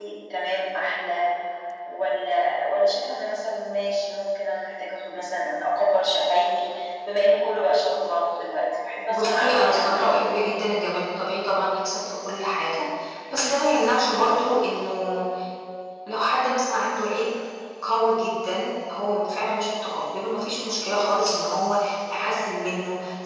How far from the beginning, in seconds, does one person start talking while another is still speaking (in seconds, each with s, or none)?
9.1 s